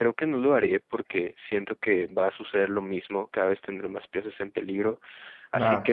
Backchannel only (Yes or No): Yes